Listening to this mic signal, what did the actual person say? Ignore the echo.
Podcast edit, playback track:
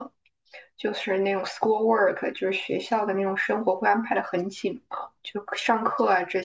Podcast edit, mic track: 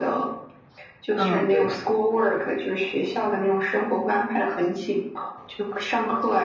嗯，对对对

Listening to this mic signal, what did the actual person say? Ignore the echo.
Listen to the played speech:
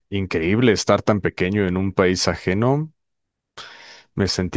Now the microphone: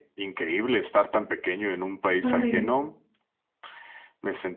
Qué padre.

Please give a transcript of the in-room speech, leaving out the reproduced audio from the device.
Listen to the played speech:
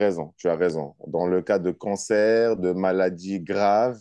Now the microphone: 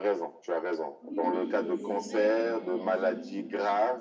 Oui, mais c'est c'est vrai. Mais imagine. euh,

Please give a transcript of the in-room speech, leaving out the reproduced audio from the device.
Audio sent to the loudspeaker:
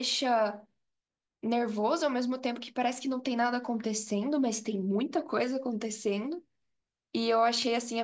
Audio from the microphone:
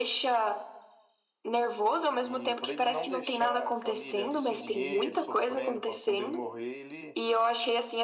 E para ele não deixar a família ali sem dinheiro, sofrendo, para quando ele morrer, ele,

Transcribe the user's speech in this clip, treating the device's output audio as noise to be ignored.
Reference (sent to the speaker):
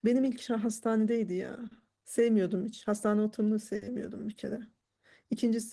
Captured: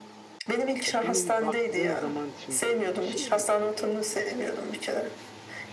ya bir nevi baktığın zaman şimdi şey gibi geliyor bana mesela.

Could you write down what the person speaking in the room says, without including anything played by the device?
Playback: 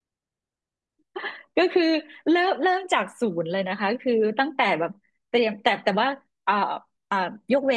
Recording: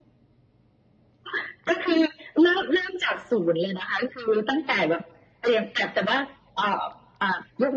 none

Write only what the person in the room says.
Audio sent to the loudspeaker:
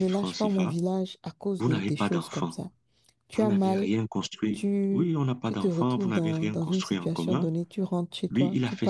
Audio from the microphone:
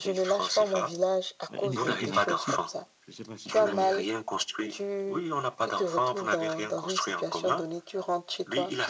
un effet thérapeutique. Je sais pas si tu vois un peu.

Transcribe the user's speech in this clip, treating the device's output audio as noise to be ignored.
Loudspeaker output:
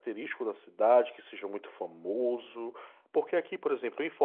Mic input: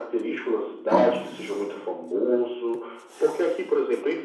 Claro.

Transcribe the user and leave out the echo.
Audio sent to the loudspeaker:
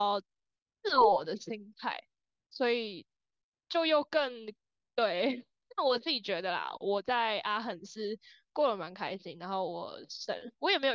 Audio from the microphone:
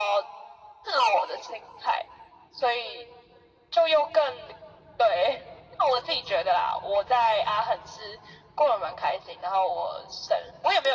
none

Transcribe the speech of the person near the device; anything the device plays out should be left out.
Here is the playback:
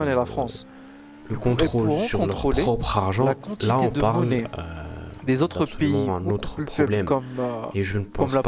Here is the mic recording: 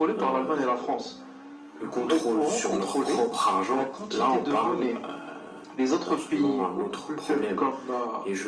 none

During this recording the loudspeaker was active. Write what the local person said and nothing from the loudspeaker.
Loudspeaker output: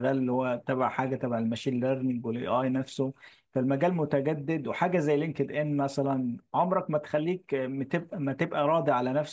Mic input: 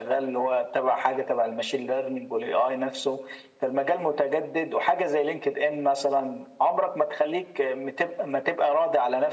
none

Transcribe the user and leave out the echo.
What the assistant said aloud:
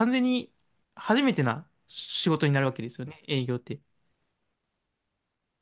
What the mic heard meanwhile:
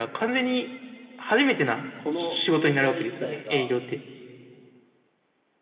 この業界自体が、

